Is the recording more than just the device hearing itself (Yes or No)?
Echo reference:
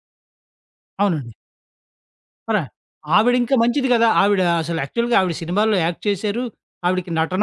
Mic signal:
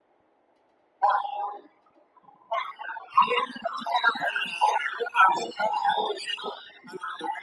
No